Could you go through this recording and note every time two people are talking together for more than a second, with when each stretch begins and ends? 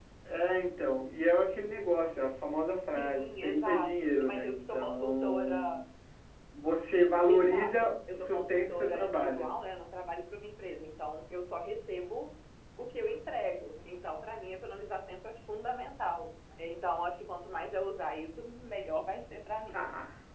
3.0-5.8, 7.3-9.5

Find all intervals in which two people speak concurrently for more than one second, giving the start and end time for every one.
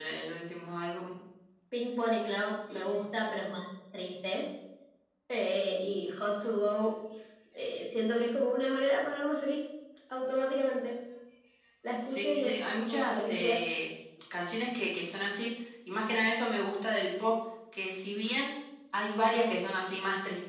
12.1-13.6

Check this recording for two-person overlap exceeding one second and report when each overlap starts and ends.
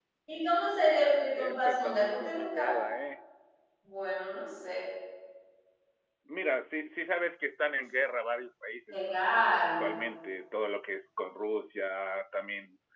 1.4-2.8

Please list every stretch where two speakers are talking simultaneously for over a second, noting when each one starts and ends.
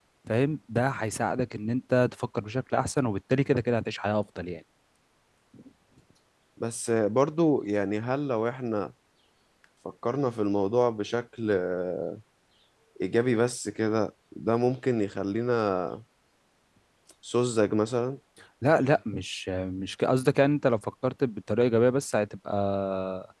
none

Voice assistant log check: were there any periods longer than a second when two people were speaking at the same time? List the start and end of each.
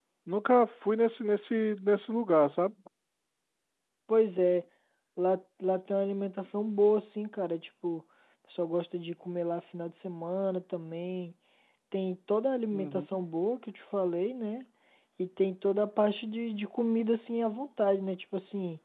none

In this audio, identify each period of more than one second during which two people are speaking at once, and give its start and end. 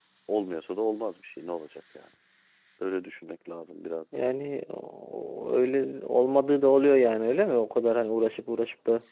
none

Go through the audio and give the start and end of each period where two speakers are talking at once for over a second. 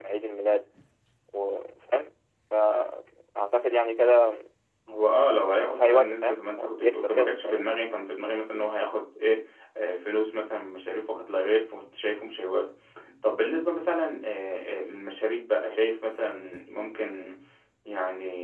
5.6-7.7

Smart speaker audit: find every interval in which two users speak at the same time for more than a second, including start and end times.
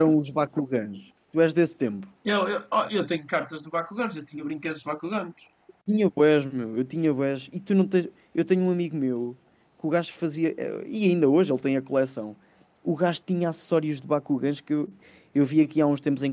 none

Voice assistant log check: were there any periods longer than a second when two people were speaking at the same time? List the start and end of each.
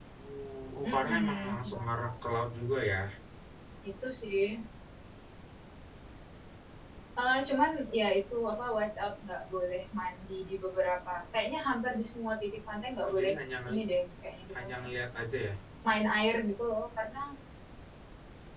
0.8-2.1

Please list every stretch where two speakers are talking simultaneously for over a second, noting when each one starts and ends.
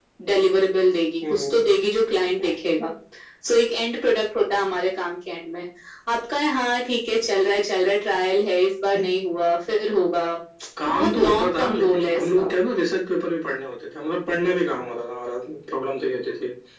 10.8-12.5

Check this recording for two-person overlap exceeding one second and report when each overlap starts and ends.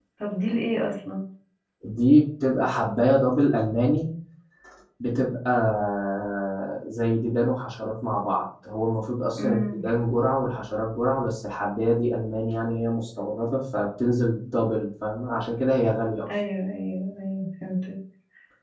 none

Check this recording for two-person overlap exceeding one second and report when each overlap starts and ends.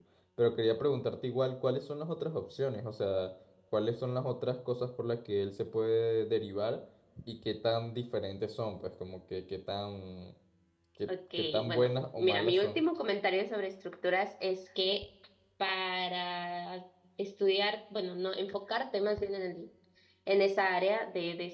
11.4-12.8

